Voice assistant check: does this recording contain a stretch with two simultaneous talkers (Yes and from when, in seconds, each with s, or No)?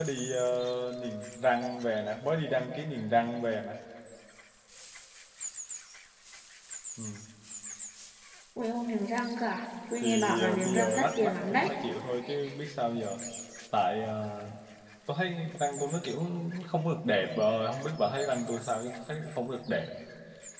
Yes, from 10.0 s